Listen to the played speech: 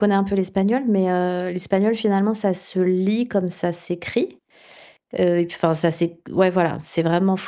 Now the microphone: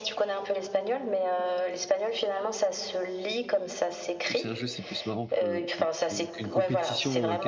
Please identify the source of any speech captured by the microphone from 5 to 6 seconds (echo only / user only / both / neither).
both